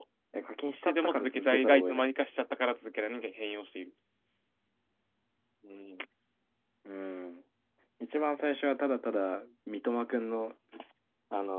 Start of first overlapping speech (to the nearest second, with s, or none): 1 s